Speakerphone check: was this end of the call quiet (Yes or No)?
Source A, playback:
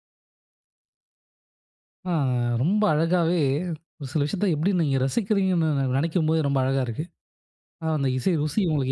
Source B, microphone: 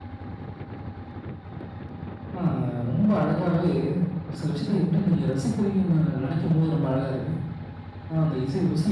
Yes